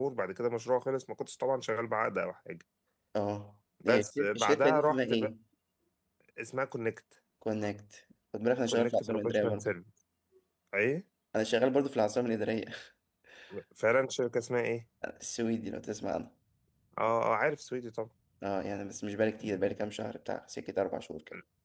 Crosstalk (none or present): present